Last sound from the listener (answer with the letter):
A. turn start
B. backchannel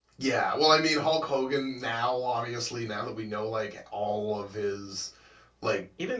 A